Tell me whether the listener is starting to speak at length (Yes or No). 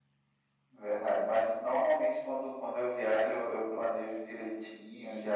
No